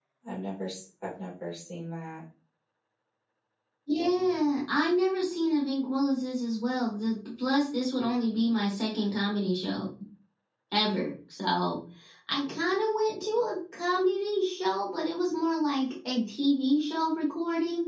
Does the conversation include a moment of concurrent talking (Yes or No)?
No